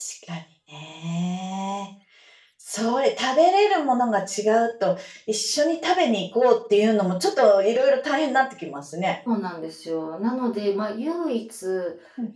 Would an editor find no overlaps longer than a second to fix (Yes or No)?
Yes